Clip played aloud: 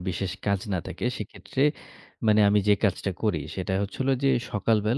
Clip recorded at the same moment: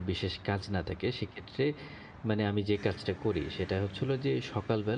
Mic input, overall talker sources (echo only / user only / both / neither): echo only